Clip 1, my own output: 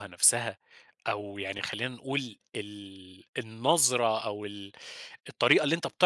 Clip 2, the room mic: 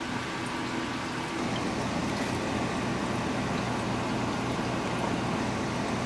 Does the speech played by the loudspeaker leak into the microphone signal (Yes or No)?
No